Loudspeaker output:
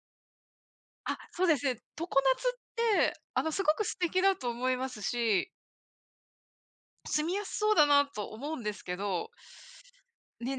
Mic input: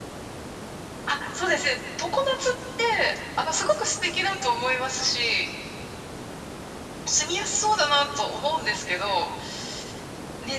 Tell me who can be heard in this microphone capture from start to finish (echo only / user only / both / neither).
echo only